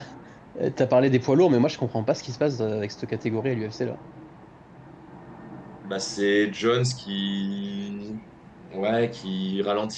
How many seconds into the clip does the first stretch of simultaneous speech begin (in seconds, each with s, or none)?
none